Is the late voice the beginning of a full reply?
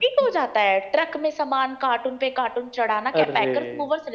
No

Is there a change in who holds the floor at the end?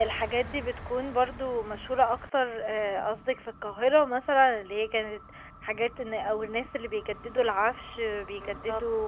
No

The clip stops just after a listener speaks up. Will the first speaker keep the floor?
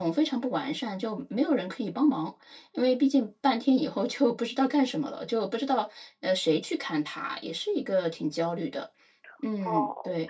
No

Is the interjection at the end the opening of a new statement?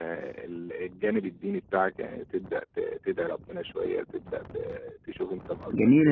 Yes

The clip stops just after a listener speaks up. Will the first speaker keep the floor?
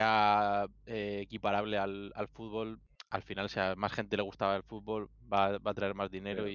No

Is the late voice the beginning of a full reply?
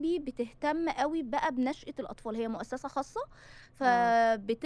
No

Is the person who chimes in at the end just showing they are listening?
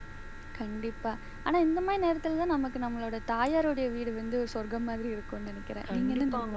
No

